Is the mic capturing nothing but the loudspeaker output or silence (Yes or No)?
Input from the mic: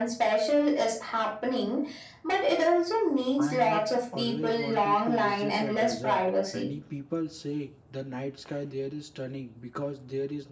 No